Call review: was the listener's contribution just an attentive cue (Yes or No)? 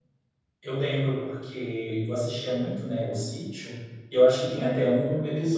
Yes